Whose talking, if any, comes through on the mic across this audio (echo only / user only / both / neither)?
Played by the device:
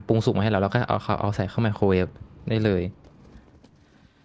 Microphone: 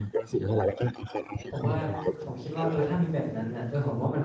both